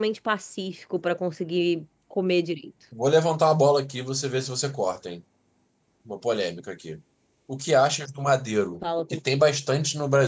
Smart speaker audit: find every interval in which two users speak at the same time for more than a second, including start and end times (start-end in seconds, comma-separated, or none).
none